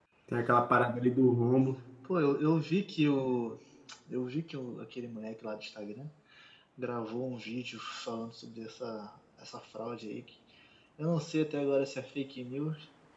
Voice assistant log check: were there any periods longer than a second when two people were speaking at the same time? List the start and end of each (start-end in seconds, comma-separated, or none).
none